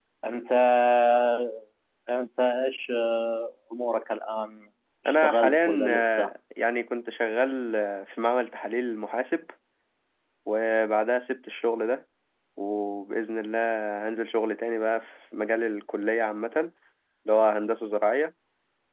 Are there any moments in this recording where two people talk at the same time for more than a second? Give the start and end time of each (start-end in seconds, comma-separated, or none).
5.1-6.3